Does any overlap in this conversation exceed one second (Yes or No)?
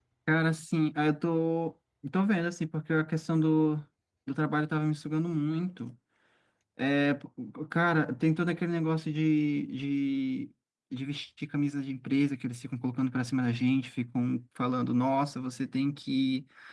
No